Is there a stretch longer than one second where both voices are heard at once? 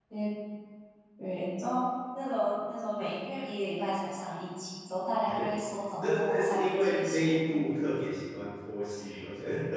Yes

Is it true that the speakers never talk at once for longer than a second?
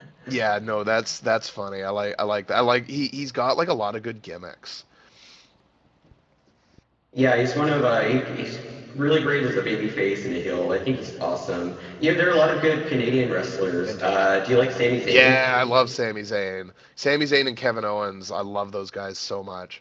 Yes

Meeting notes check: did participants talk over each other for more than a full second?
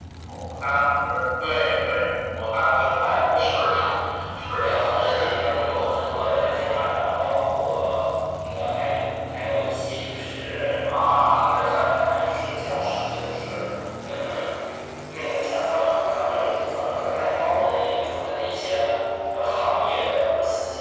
Yes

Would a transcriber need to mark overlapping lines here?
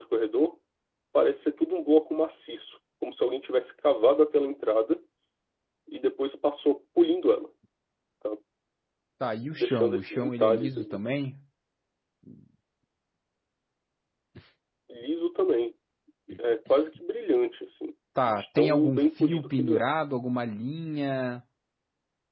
Yes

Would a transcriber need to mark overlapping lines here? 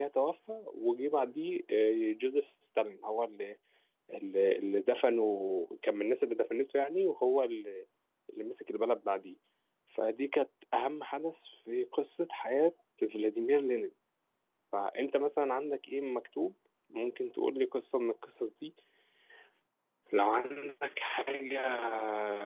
No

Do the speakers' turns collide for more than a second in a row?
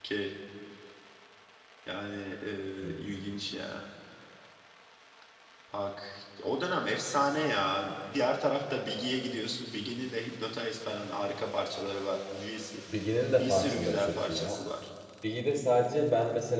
Yes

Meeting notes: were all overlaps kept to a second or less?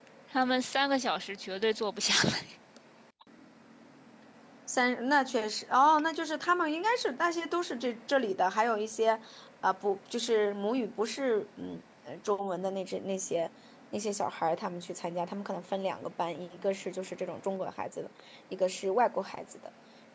Yes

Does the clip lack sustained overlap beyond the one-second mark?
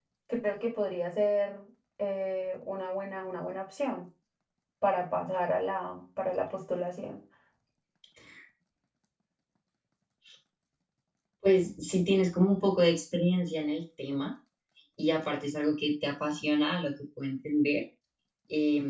Yes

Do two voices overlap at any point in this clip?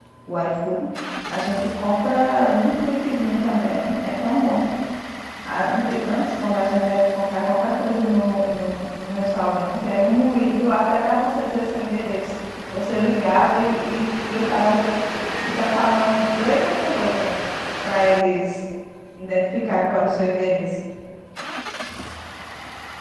No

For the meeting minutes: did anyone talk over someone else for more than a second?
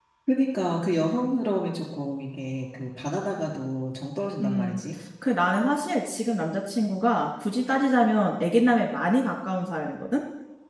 No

